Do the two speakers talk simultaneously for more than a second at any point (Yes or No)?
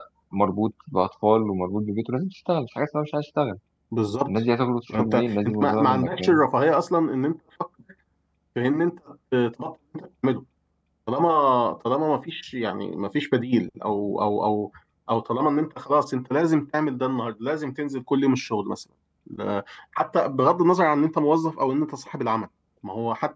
Yes